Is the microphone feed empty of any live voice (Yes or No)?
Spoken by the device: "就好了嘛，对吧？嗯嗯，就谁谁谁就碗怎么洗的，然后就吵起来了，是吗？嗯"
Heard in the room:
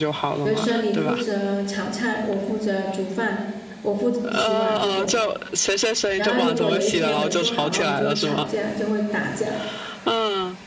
No